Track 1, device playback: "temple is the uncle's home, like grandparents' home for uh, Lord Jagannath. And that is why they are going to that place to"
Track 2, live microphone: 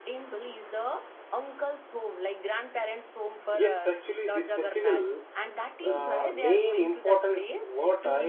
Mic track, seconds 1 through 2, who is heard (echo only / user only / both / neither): echo only